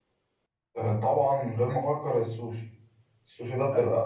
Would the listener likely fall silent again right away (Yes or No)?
Yes